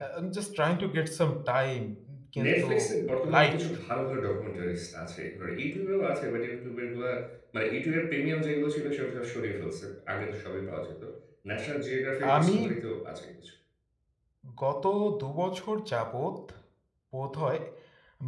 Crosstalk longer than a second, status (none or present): none